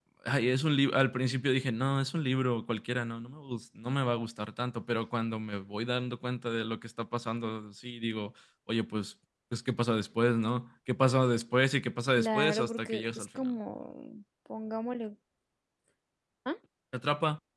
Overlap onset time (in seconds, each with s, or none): 12.2 s